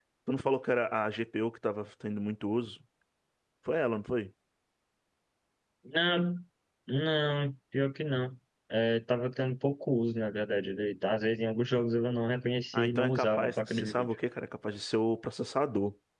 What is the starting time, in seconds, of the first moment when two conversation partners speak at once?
12.7 s

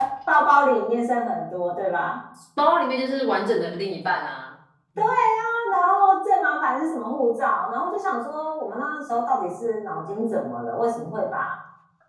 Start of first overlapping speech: none

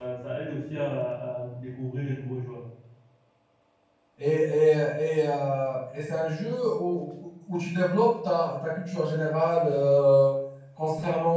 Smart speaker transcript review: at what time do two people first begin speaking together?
none

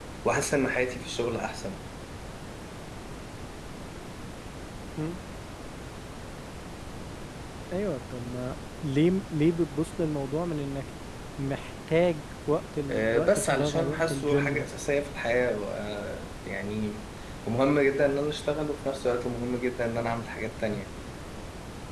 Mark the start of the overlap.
12.9 s

